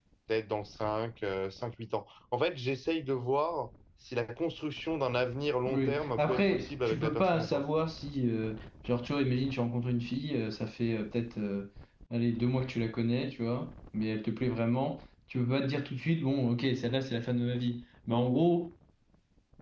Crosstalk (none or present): present